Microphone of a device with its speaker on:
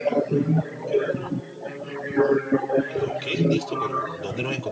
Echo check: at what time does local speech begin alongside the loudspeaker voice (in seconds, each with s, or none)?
2.9 s